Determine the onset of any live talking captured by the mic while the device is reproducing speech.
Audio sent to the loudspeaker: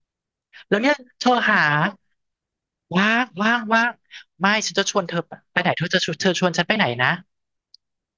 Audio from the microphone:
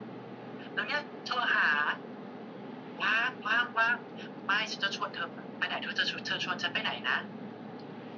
none

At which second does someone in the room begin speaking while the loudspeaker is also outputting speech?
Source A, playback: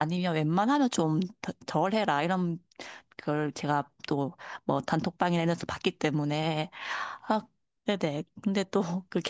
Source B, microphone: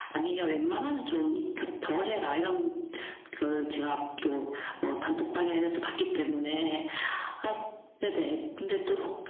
none

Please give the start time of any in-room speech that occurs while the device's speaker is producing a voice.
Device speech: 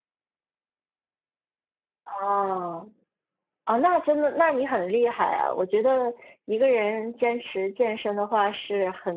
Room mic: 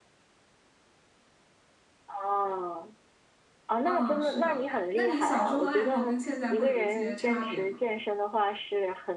3.8 s

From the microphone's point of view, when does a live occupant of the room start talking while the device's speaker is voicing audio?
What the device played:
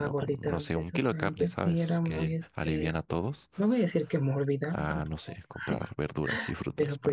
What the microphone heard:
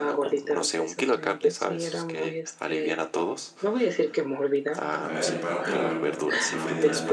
5.0 s

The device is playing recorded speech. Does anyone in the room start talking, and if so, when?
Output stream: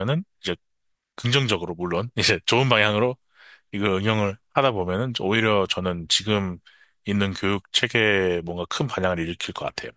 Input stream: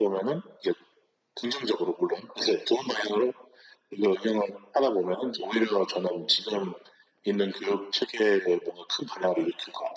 none

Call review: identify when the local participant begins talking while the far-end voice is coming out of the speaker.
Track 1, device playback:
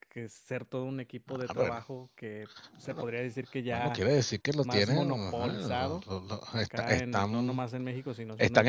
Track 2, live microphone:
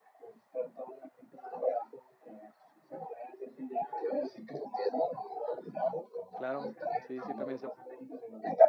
6.3 s

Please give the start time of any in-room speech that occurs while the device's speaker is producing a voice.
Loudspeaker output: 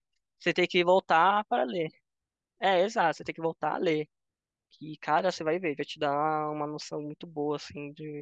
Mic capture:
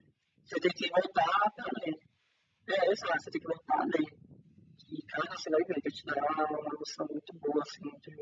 none

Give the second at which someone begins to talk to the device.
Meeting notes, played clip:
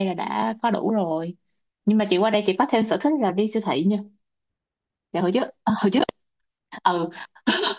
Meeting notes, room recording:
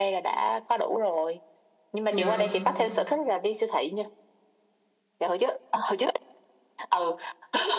2.1 s

